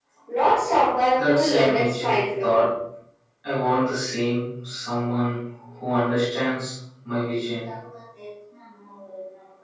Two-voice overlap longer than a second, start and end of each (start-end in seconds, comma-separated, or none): 1.1-2.6